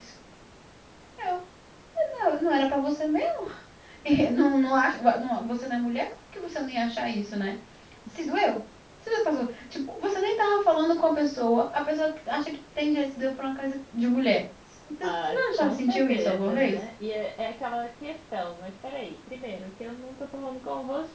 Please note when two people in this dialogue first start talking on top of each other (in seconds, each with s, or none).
15.0 s